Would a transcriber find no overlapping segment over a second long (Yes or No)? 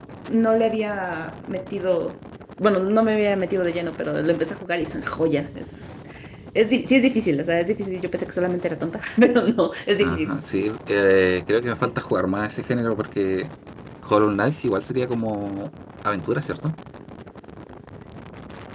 Yes